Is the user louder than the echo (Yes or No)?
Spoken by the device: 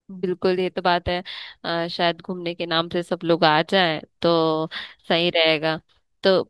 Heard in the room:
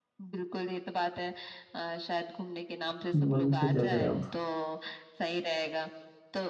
Yes